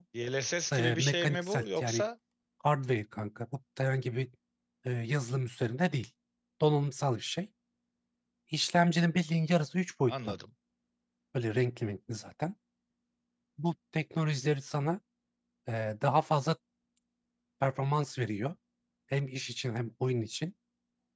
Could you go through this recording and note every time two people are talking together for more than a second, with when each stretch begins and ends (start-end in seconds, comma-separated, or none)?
0.7-2.0